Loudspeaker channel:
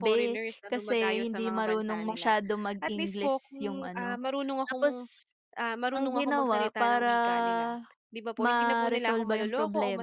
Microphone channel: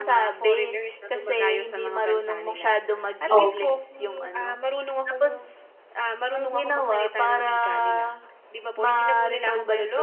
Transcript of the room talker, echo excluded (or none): opo.